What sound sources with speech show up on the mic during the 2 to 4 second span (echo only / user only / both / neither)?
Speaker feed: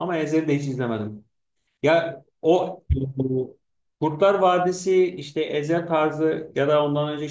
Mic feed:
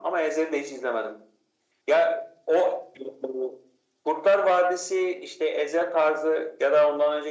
echo only